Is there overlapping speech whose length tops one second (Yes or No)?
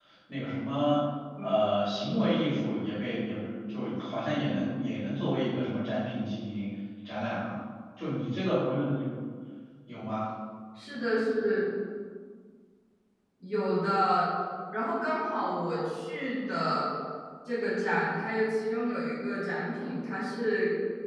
No